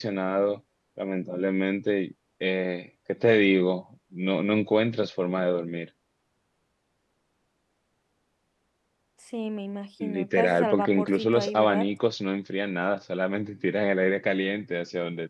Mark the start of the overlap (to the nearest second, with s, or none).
10 s